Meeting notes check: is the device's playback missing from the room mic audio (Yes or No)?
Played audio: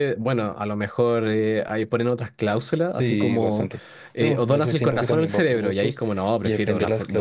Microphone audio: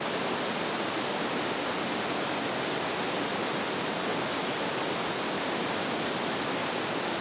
Yes